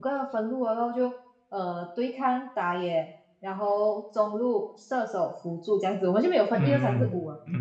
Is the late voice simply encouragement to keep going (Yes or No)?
No